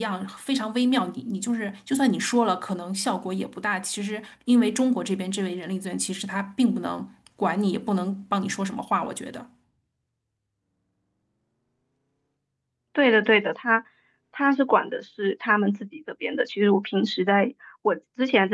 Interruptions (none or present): none